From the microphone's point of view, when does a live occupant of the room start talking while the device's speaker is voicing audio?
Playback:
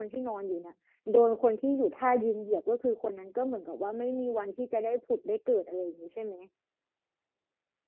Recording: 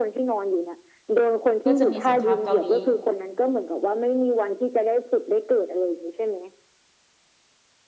1.6 s

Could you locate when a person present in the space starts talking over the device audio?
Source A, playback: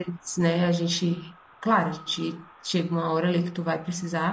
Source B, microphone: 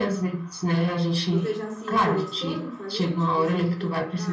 1.3 s

